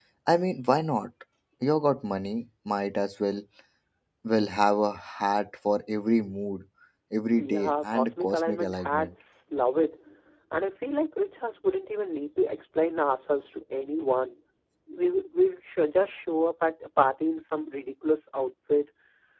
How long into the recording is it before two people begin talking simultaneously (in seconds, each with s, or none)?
7.3 s